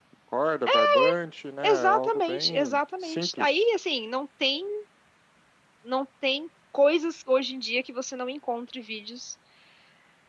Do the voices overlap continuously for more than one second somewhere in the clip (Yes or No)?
Yes